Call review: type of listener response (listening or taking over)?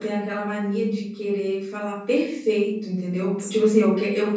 listening